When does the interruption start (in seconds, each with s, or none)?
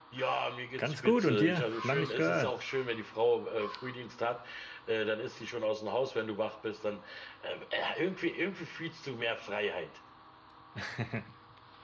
0.8 s